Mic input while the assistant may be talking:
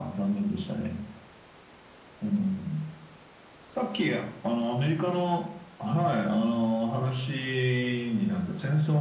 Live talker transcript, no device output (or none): none